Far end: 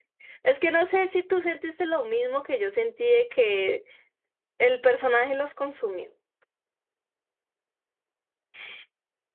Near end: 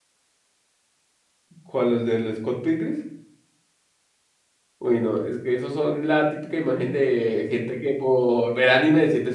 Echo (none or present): none